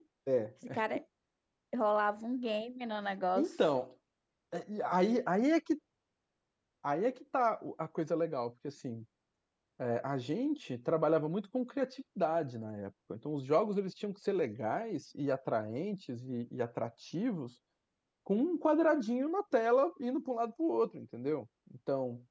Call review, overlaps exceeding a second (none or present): none